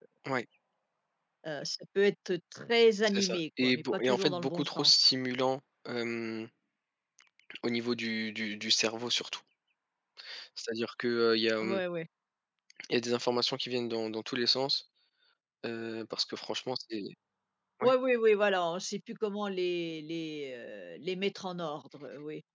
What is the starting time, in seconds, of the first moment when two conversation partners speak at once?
3.0 s

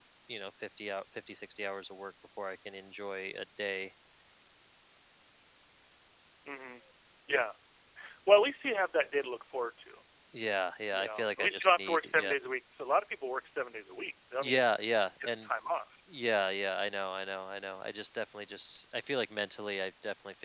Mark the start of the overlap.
10.9 s

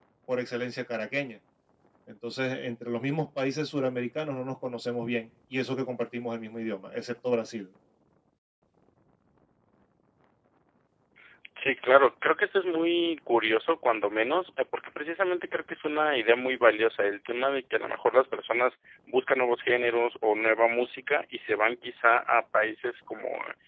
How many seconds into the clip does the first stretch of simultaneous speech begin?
none

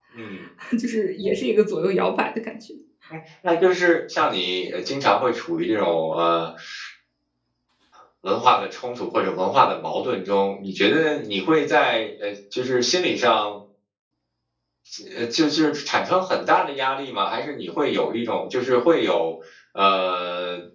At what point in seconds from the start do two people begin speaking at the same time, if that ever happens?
none

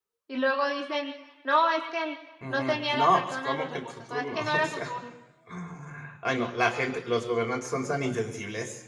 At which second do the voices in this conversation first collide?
2.4 s

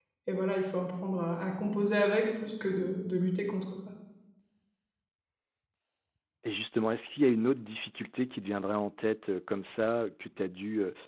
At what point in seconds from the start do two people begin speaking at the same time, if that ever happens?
none

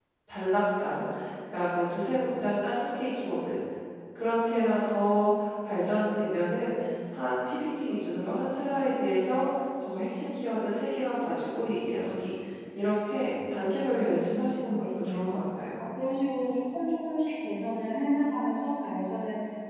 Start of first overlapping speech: 13.9 s

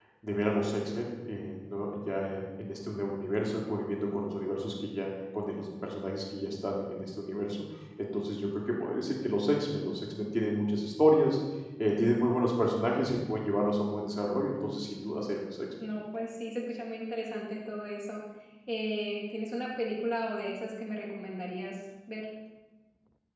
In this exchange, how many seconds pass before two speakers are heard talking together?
none

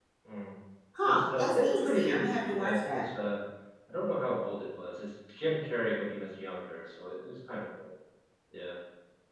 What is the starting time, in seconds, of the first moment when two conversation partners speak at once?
1.0 s

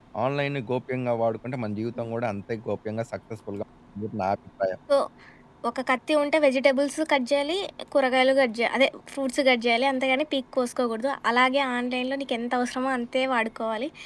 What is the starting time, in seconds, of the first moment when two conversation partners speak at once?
none

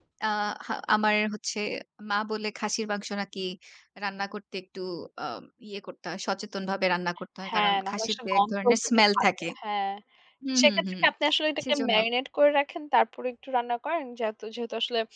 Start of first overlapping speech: 7.5 s

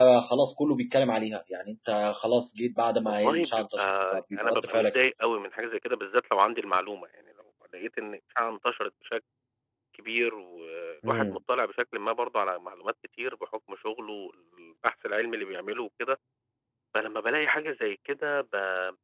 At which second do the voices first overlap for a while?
3.0 s

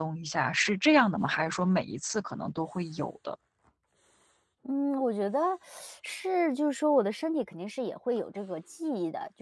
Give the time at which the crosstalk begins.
none

